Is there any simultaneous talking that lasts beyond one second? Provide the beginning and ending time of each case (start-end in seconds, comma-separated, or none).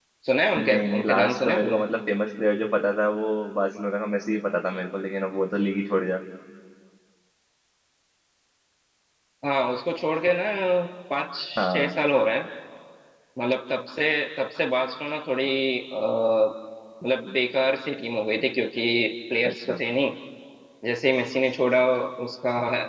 0.6-1.8